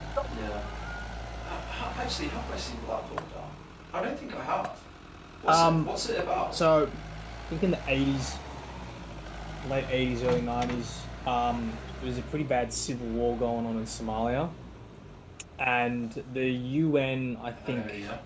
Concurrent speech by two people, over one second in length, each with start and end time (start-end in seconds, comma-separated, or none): none